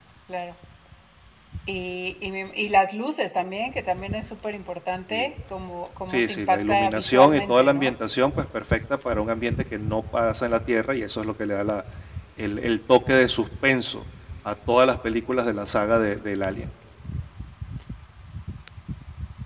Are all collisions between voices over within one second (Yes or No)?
No